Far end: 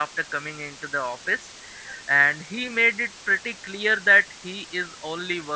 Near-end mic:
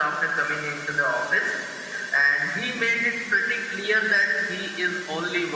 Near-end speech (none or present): none